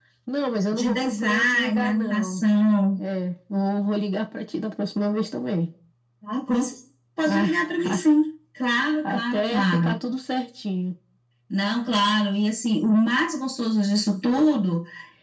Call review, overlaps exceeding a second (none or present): present